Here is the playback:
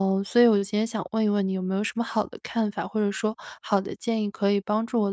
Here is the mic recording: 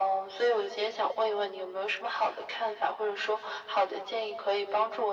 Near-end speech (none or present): none